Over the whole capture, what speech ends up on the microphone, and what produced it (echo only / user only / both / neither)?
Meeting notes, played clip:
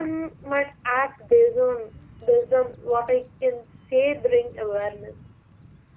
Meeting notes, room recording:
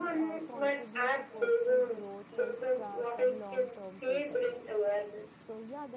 both